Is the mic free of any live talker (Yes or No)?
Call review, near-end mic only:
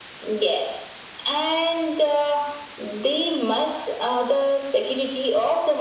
Yes